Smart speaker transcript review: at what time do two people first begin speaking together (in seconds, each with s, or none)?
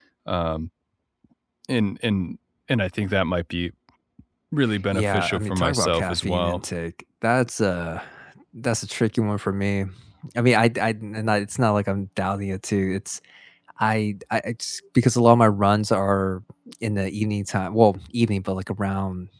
4.9 s